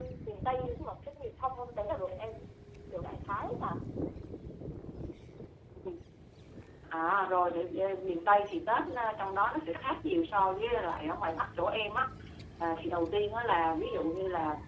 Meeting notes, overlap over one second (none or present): none